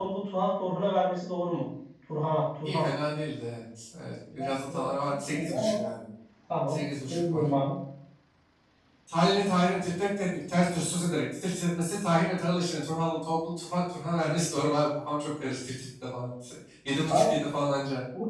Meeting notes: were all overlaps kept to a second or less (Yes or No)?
No